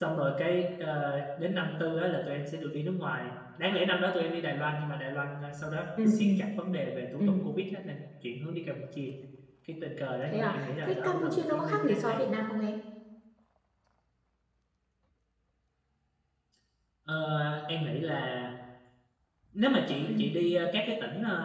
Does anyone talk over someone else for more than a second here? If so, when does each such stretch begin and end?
10.3-12.2

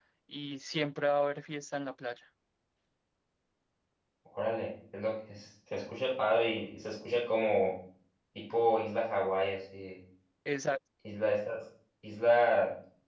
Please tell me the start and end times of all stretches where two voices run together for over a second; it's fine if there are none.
none

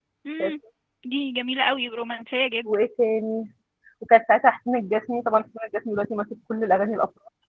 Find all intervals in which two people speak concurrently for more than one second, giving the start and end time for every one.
none

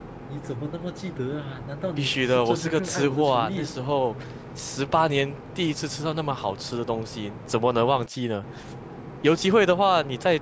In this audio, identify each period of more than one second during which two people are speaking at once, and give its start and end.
2.0-3.8

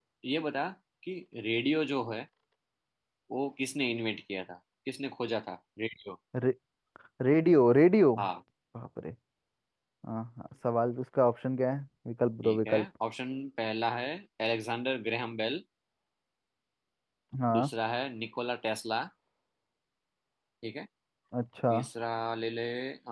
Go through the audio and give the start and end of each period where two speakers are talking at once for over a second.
none

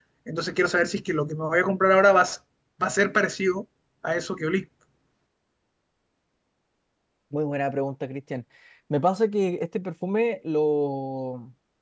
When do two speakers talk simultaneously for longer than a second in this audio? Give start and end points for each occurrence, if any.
none

